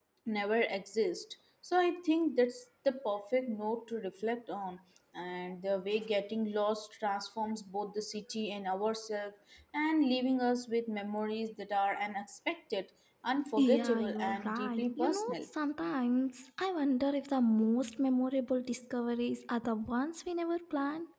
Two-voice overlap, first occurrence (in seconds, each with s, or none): 13.6 s